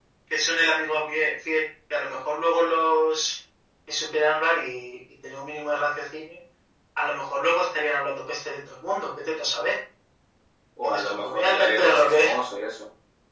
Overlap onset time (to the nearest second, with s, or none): 11 s